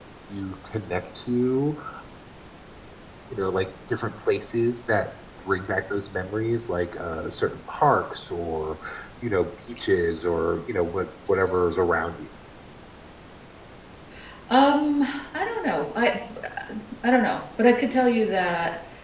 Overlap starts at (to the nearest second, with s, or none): none